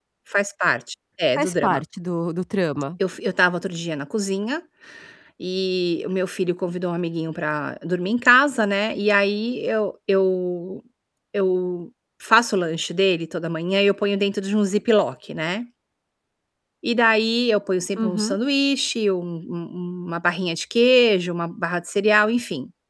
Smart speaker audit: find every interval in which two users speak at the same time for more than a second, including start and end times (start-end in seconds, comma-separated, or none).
none